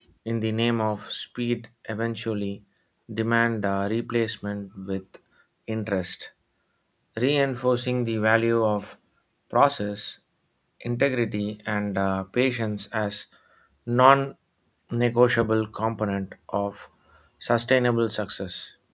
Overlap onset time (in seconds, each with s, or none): none